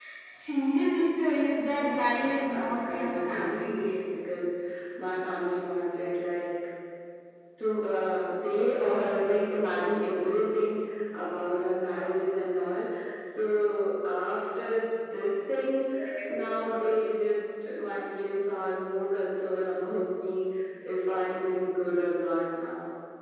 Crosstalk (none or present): present